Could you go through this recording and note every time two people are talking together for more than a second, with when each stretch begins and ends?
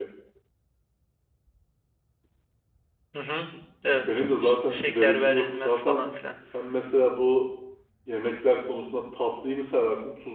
3.9-6.1

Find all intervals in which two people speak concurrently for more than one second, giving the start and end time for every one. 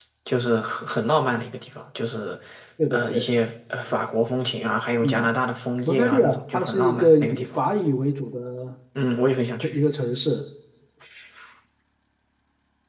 5.8-7.6

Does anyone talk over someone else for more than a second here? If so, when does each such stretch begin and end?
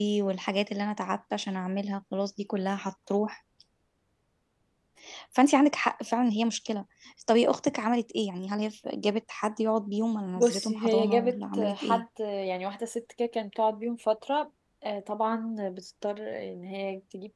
10.3-12.0

